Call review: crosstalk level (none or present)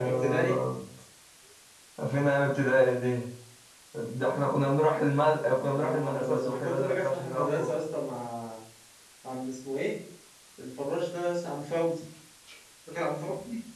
present